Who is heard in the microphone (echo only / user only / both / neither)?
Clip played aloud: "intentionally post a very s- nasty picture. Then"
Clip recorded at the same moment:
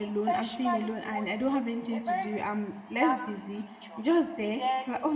both